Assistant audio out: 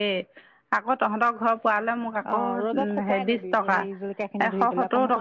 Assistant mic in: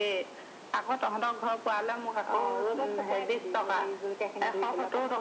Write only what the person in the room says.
none

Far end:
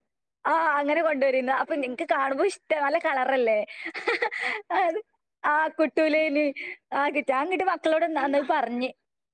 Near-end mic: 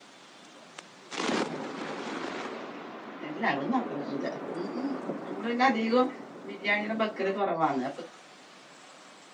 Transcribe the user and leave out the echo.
ഇല്ല ഒന്നും അത്ര പൂജ ഉ ഉ നമ്മള് പിന്നെ അത കം ബിരിയാണിഎല്ലാം ബക്കല് കുറവന്ന്

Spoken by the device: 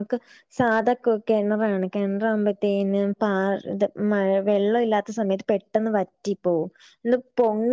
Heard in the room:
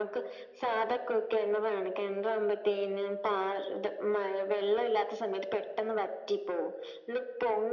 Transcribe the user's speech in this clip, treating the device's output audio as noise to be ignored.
none

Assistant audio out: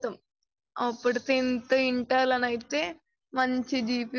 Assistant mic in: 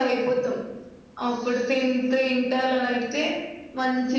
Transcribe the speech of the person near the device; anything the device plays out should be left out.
none

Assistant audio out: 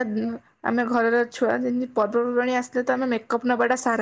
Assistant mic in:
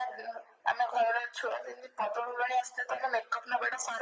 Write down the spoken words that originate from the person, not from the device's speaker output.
none

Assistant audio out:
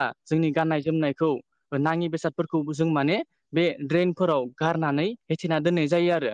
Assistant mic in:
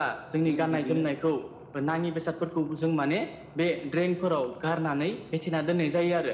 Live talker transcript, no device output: जों बिदिनो

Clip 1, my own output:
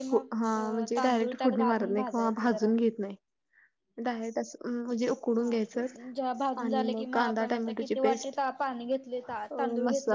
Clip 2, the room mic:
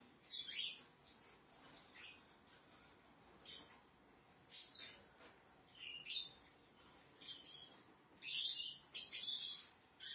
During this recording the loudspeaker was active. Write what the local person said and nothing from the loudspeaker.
none

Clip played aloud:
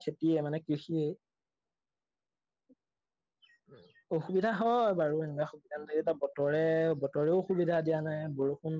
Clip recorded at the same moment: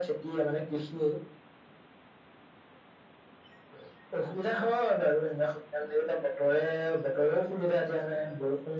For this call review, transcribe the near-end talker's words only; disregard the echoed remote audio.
none

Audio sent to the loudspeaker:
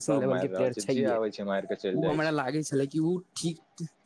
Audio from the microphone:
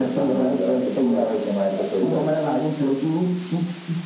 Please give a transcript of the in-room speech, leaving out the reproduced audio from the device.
none

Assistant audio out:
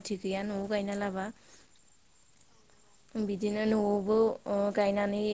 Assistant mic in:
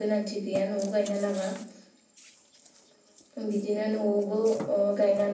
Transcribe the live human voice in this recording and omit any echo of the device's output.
none

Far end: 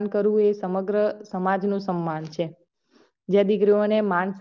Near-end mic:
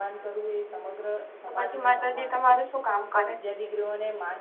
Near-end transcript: તો પછી માતાજી તમારું શું કામ કરે

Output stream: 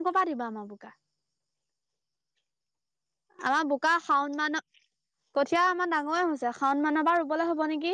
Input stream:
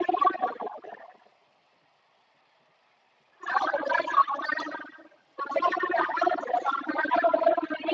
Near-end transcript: none

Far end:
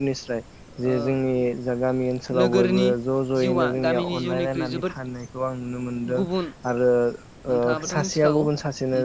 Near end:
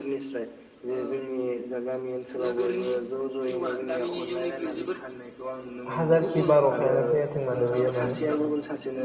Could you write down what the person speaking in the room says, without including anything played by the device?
हाजारखि बार अखायानो फैयाथों माने बेयो माने

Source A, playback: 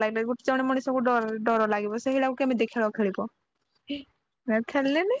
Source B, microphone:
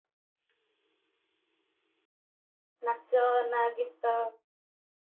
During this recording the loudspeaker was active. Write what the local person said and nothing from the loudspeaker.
ନାଚ ନା ଗୀତ?

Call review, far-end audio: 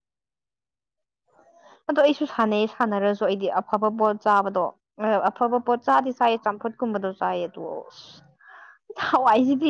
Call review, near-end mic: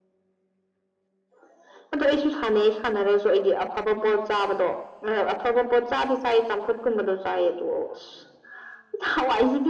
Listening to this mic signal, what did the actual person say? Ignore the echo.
none

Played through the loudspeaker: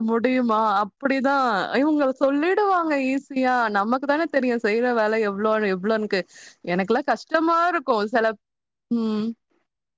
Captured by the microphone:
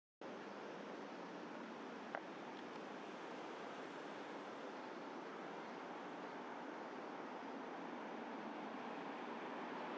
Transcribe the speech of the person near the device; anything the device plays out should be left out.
none

